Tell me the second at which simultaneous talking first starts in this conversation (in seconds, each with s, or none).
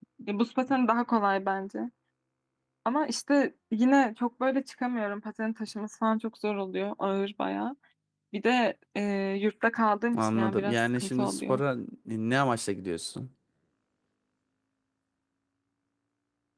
10.1 s